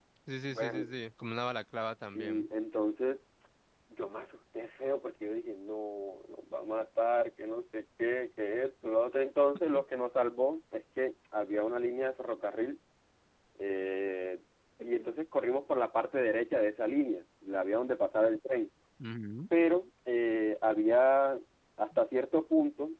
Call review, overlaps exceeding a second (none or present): none